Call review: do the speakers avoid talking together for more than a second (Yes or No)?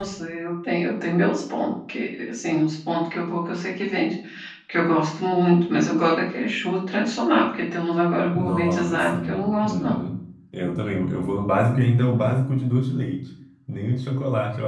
No